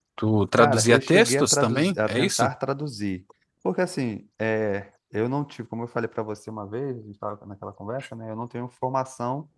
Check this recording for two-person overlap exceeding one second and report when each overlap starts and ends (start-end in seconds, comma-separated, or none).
0.6-2.5